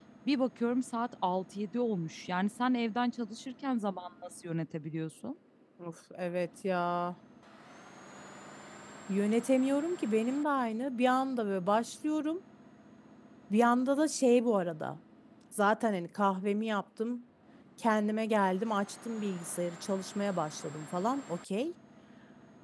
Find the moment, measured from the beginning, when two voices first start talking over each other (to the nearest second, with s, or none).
none